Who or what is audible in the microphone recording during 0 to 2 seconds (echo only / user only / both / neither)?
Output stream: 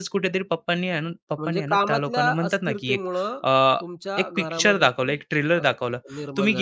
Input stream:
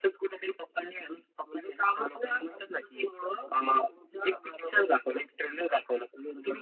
echo only